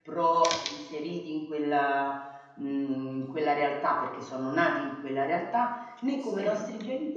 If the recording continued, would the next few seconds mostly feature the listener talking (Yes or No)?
No